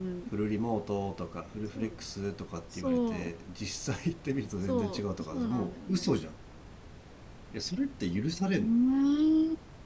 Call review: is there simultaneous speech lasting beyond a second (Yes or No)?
Yes